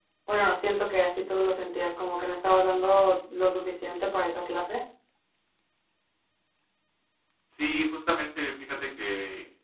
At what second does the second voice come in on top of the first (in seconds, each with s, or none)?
none